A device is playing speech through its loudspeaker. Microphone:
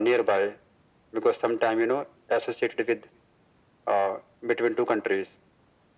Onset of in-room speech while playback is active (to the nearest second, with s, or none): none